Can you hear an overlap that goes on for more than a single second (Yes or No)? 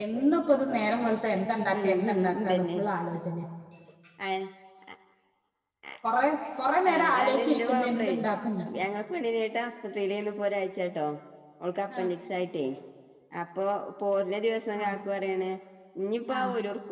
Yes